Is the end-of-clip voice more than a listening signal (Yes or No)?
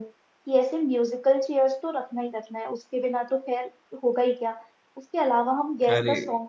No